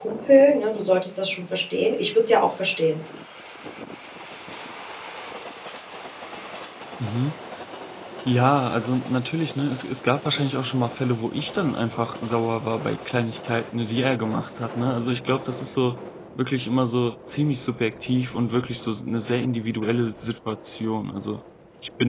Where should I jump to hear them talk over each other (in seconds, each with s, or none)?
none